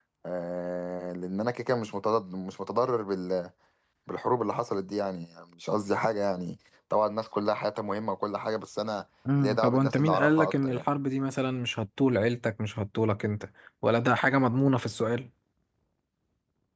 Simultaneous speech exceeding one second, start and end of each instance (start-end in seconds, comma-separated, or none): 9.4-10.8